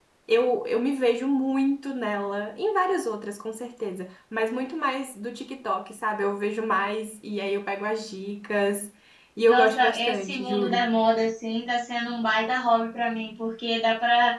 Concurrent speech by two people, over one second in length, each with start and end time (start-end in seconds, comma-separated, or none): 9.5-10.8